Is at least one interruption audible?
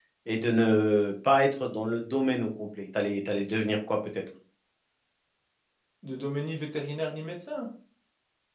No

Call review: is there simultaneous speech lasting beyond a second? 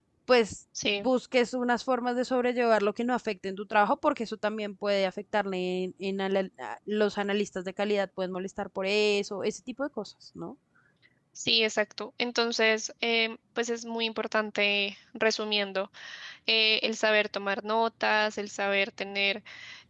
No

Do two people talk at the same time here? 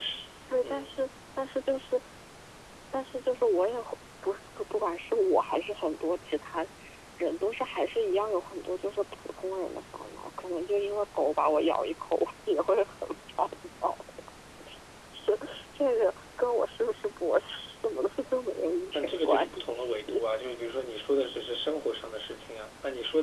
Yes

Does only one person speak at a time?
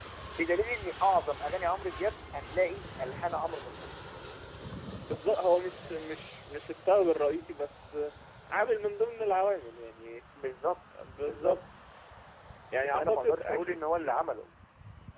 No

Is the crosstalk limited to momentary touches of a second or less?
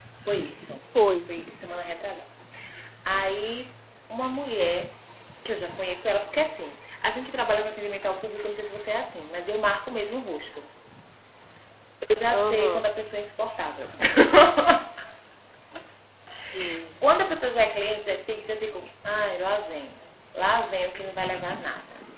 Yes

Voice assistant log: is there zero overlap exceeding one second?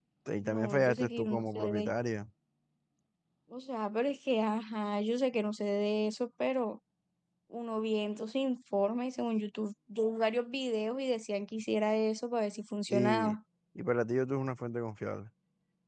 No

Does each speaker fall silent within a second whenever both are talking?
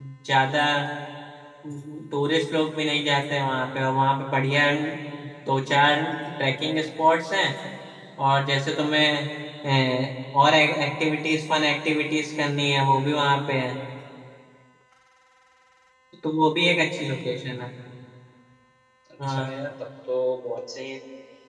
Yes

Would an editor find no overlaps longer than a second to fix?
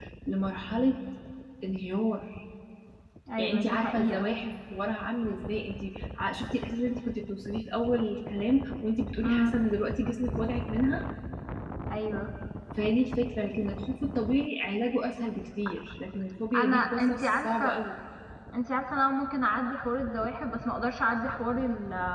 No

